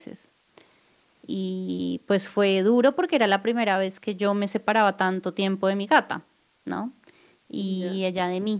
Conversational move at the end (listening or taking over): listening